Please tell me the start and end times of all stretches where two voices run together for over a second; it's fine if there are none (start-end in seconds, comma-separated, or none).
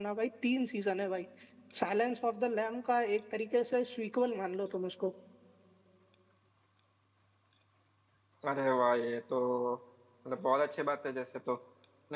none